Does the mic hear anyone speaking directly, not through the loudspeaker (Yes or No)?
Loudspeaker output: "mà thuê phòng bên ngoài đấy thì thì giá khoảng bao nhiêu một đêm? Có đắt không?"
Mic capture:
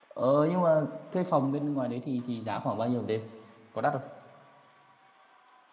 No